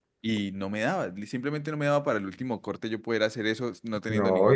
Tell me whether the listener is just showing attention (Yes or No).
No